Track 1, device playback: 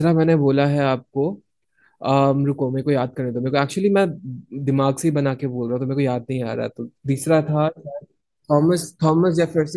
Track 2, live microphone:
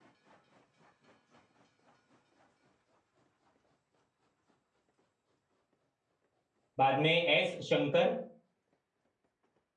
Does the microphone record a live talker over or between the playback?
Yes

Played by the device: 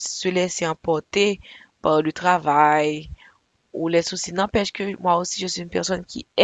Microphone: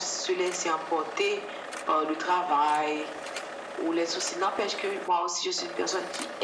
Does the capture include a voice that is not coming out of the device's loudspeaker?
No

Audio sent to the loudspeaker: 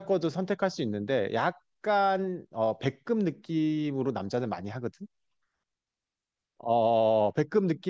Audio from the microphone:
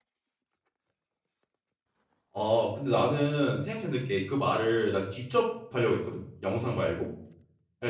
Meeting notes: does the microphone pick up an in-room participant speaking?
Yes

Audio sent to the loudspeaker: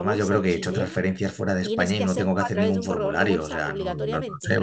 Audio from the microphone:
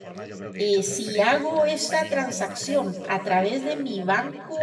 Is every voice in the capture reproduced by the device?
No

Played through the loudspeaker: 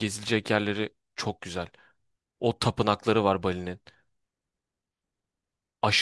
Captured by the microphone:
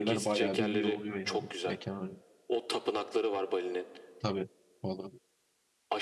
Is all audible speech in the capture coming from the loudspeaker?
No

